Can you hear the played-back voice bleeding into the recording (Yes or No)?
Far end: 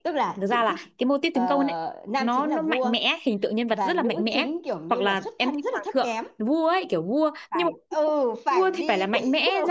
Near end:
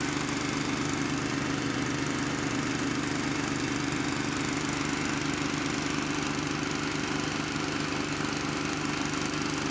No